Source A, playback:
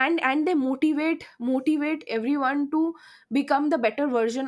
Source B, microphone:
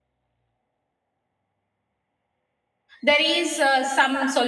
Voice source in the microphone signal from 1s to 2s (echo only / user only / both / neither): neither